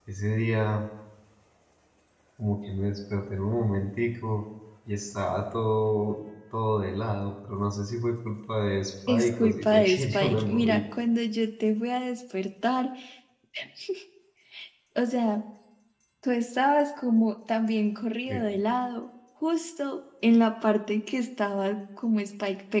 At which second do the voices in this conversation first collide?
9.1 s

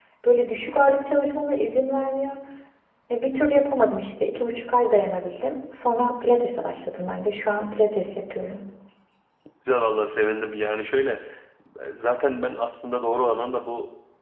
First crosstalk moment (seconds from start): none

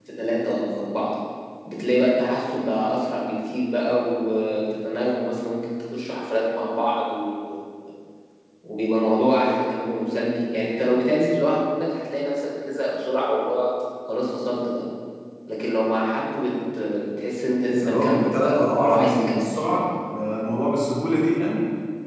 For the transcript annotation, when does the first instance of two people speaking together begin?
17.8 s

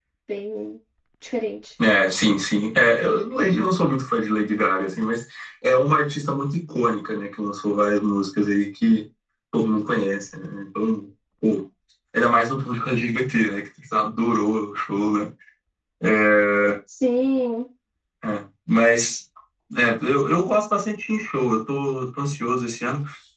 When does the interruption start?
none

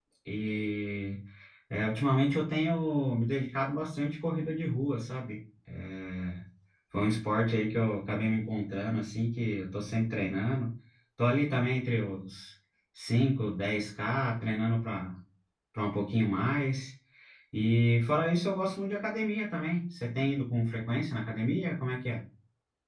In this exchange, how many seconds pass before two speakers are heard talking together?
none

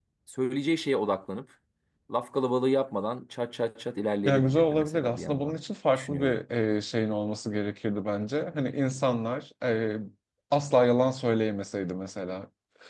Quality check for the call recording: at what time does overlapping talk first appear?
4.2 s

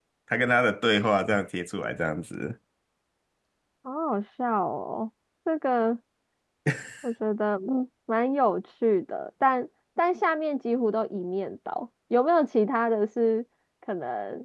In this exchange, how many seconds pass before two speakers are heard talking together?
none

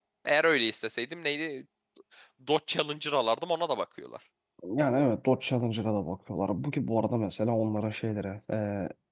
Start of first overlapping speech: none

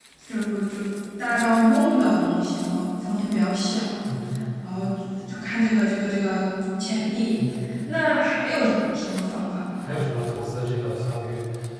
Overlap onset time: none

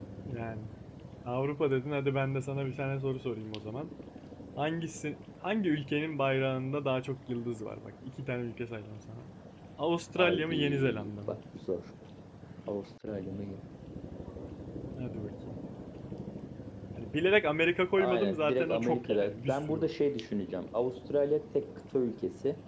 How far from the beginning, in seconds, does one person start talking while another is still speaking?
10.2 s

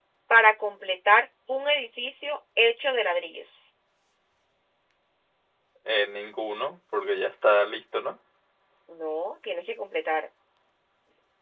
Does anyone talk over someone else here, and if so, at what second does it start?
none

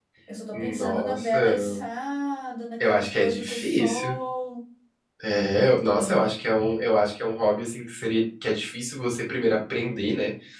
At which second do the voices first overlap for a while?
0.5 s

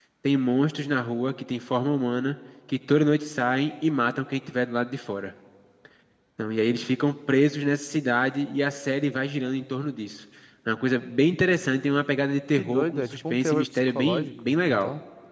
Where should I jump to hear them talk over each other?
12.6 s

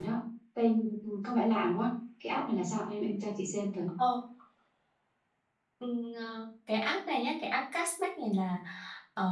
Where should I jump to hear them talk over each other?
none

